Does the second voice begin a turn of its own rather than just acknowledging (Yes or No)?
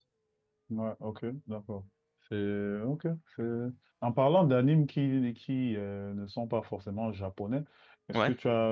No